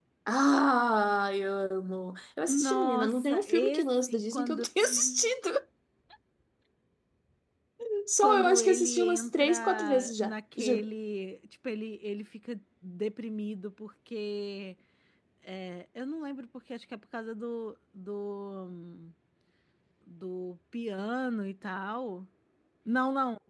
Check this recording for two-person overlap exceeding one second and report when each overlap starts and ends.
2.4-5.3, 8.2-10.9

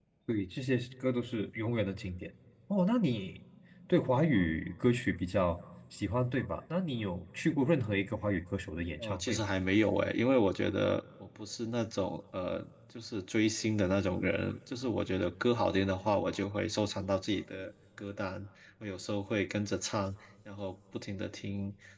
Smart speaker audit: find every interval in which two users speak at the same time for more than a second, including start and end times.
none

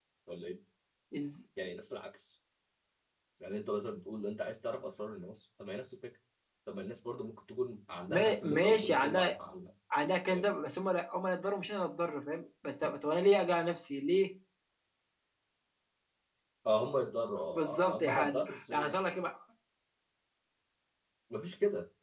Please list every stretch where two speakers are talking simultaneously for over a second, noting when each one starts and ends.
8.1-9.4, 17.4-19.0

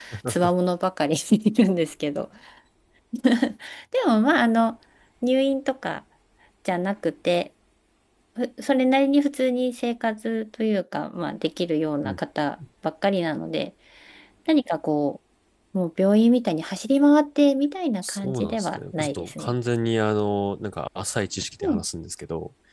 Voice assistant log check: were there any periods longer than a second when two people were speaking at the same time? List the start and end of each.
18.0-19.5

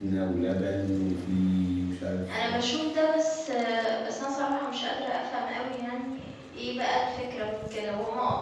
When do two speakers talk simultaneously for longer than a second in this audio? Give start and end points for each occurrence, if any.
none

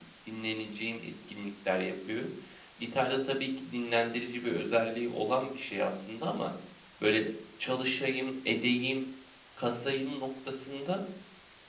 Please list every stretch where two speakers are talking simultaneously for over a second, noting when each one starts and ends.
none

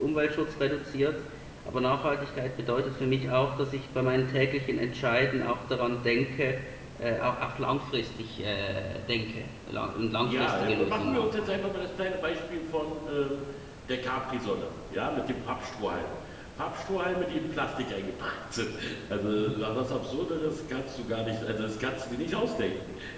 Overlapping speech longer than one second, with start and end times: 10.2-11.7

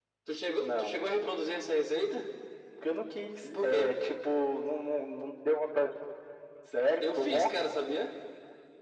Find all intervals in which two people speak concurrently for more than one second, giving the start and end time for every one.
none

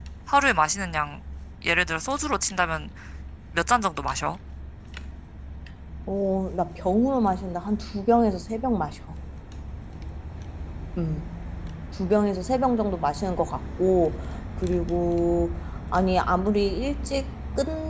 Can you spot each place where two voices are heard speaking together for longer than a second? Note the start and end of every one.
none

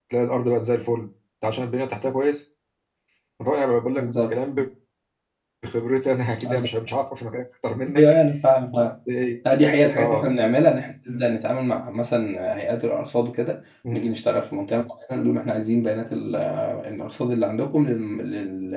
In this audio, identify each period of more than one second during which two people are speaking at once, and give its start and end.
none

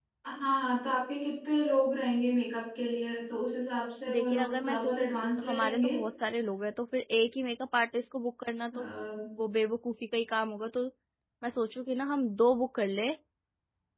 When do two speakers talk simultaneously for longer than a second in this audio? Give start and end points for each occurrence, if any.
4.1-6.0

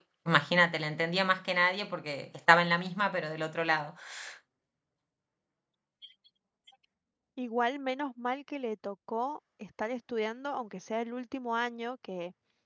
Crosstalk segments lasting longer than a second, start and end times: none

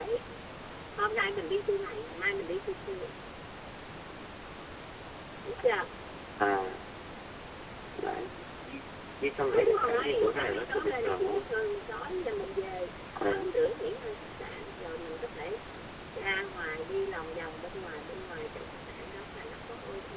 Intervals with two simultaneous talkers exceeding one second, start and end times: 9.5-11.4

